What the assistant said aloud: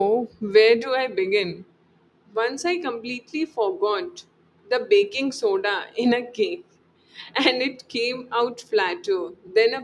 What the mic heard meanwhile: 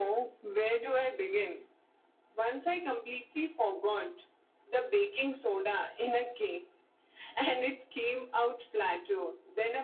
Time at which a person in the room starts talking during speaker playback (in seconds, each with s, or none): none